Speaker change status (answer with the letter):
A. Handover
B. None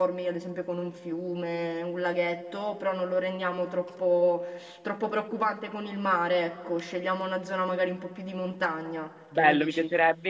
A